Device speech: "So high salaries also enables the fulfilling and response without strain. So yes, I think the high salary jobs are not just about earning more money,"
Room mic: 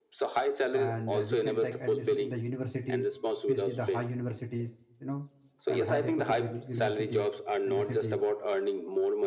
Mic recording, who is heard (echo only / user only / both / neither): both